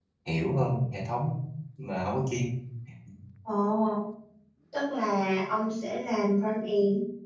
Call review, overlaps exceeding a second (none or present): none